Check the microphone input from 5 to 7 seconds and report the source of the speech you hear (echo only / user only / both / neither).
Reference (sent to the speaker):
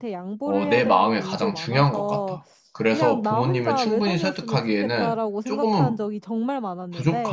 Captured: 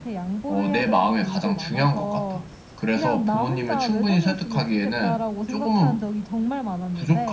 echo only